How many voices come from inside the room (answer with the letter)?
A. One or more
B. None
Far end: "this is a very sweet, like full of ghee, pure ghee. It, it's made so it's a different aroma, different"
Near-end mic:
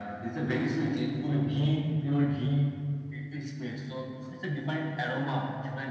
B